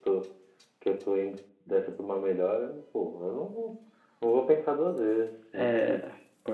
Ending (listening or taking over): taking over